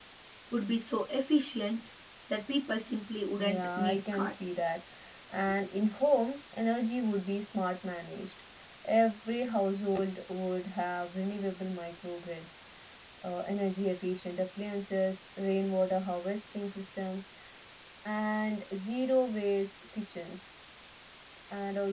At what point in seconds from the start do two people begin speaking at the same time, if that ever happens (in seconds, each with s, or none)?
3.4 s